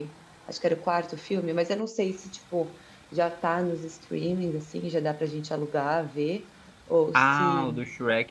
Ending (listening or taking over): taking over